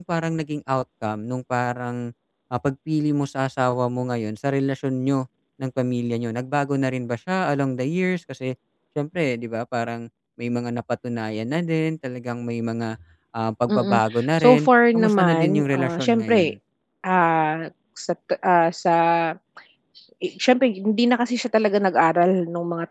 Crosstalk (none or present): present